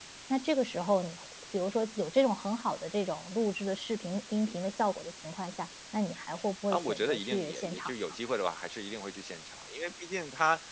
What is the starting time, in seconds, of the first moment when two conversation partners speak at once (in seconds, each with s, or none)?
6.7 s